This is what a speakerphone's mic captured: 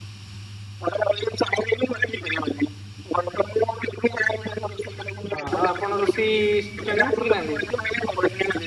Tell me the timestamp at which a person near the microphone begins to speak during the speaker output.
5.3 s

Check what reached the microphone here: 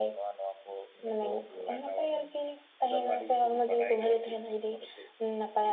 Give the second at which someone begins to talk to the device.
none

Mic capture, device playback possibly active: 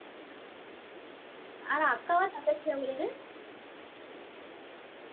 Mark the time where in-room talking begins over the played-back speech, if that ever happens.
1.7 s

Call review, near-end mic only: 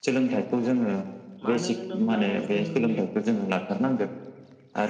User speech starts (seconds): 1.4 s

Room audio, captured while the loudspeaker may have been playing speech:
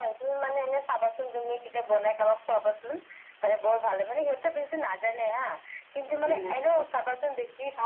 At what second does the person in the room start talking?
6.1 s

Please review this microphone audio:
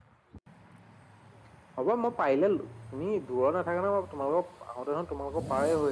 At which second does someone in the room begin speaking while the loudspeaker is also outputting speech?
none

